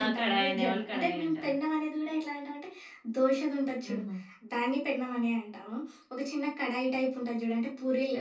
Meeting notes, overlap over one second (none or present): present